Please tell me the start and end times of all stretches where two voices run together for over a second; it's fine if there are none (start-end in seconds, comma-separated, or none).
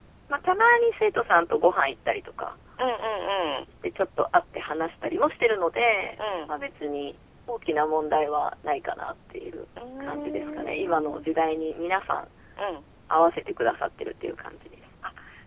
10.0-11.2